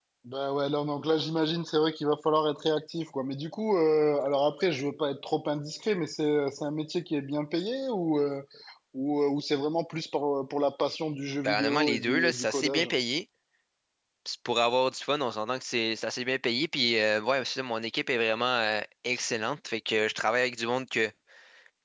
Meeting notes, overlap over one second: present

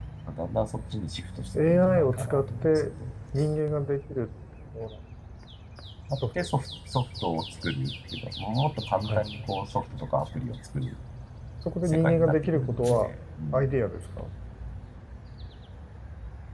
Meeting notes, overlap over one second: present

